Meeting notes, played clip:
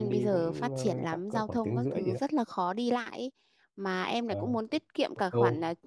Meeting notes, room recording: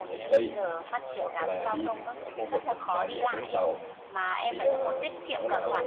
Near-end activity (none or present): present